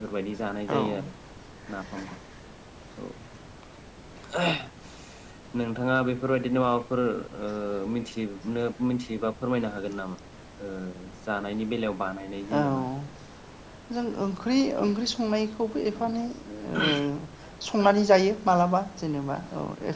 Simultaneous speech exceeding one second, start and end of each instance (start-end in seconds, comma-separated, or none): none